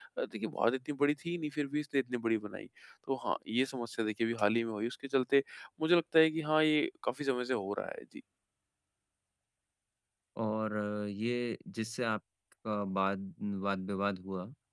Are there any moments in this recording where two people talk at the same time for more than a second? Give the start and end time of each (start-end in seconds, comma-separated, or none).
none